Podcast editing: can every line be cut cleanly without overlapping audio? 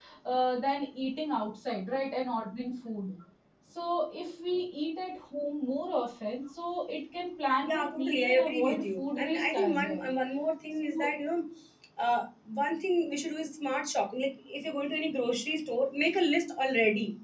No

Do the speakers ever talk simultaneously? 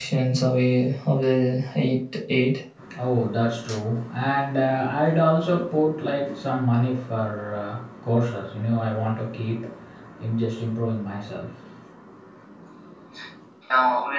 No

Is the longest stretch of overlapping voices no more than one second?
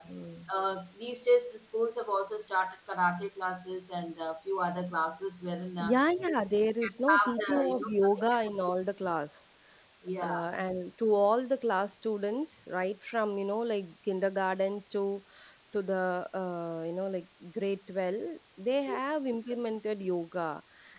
No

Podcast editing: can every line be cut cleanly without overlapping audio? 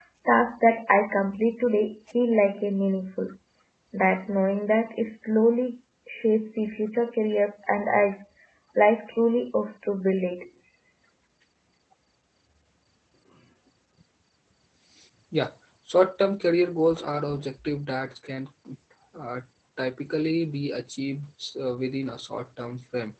Yes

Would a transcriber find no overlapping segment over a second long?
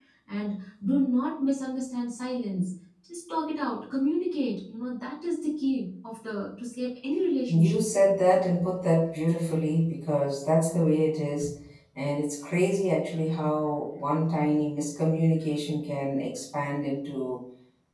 Yes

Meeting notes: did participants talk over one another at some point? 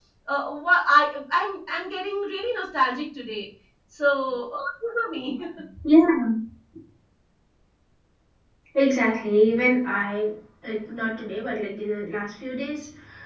No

